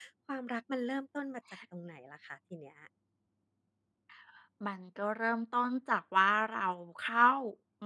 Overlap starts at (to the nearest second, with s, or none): none